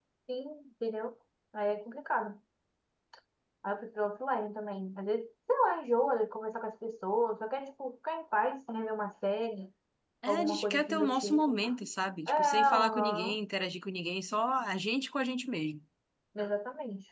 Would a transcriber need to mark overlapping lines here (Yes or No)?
Yes